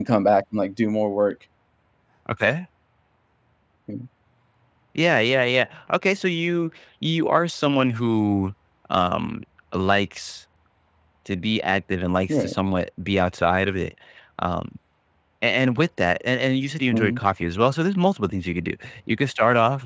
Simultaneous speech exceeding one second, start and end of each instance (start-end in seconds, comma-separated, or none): none